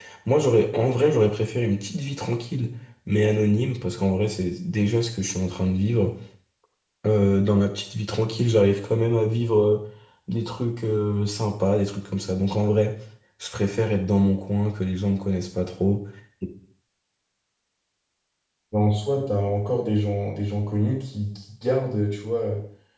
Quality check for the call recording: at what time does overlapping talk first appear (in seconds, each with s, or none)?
none